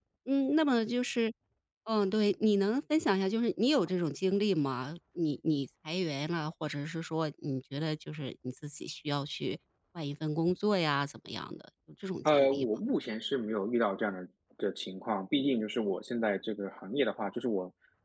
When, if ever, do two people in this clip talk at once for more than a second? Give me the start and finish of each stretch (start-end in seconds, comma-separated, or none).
none